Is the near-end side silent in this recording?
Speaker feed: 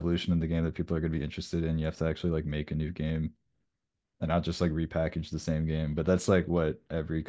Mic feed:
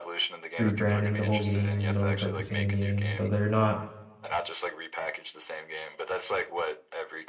No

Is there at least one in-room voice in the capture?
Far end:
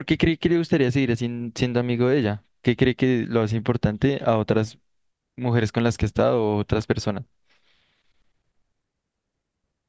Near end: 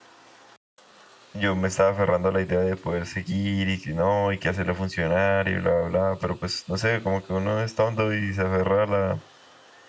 Yes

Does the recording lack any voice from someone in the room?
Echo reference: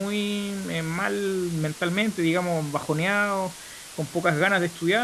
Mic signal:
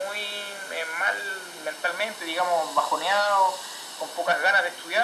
Yes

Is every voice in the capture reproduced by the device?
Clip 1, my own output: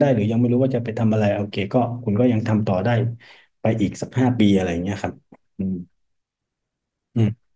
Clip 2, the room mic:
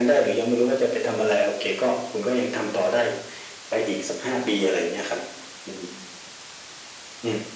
Yes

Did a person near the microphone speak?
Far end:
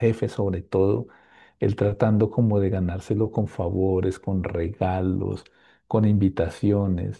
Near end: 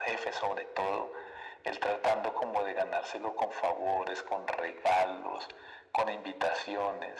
No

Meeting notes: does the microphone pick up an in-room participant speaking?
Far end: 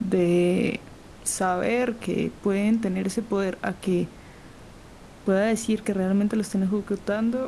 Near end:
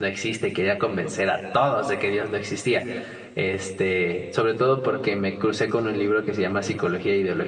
Yes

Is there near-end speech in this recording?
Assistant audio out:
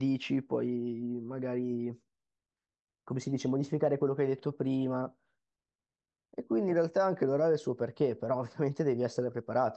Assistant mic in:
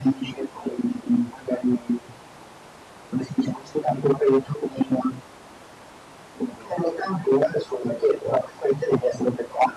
No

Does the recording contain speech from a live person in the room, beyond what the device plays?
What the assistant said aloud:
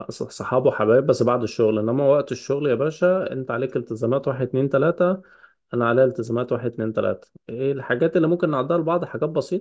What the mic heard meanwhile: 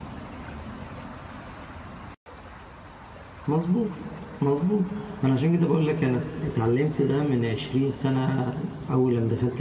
Yes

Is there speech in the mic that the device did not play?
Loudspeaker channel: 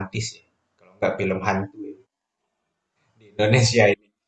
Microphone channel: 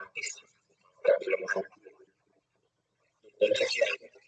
No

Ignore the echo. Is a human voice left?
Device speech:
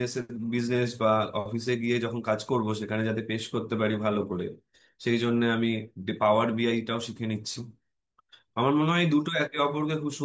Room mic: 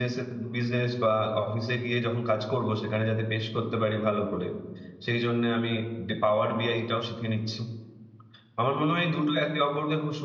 No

